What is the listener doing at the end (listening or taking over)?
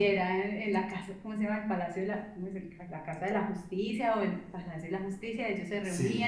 listening